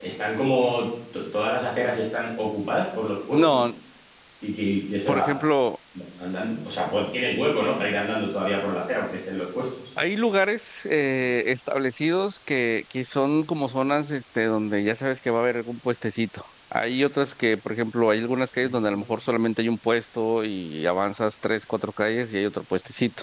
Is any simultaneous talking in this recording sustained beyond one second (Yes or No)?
No